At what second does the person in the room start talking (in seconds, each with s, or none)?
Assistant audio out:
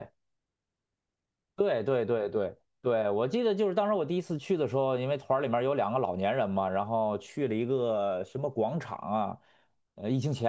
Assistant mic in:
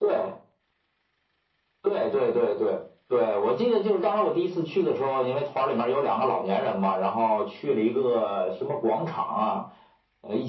none